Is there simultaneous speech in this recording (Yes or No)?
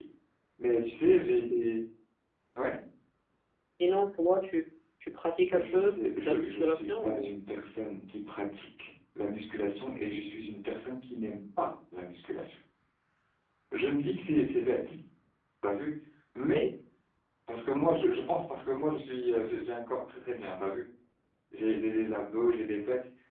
Yes